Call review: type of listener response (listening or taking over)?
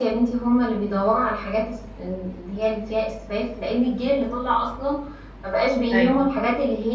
listening